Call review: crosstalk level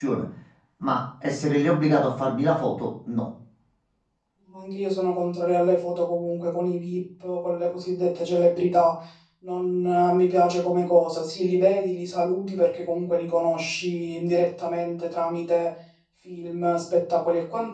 none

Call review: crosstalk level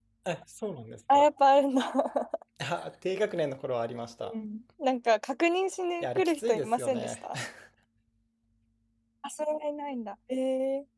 present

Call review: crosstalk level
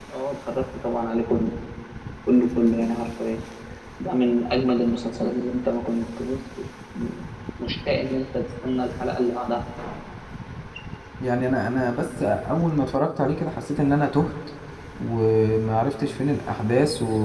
none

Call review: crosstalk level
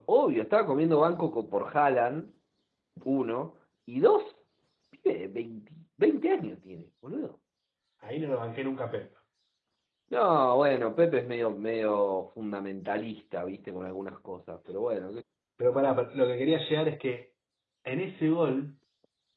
none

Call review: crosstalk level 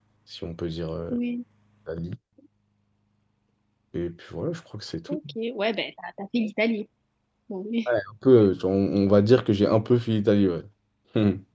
none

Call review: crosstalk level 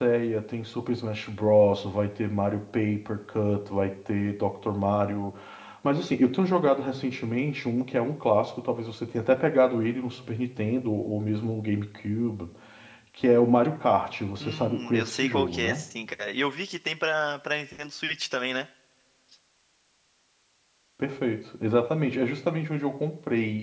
present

